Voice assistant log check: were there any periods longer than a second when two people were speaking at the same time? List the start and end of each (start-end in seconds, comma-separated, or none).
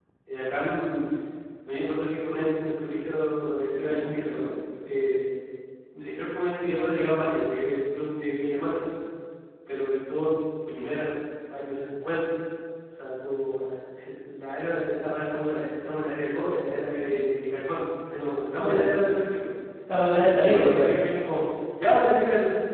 none